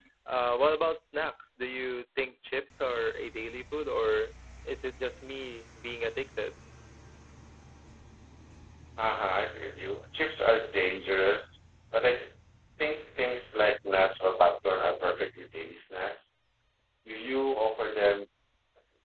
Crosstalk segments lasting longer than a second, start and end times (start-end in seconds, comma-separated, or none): none